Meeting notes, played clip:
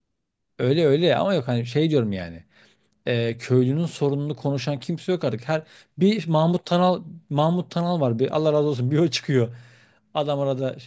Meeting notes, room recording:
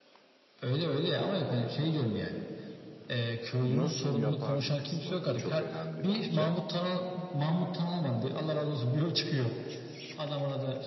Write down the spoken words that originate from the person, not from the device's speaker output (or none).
nasıl yapardı kısmı çok önemli bence.